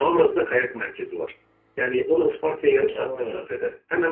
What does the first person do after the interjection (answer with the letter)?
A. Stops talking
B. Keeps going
B